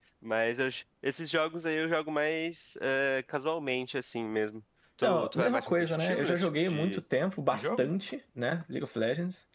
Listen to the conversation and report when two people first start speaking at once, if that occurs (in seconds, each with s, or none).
5.0 s